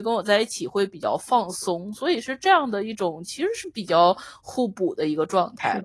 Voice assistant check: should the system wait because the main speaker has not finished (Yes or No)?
No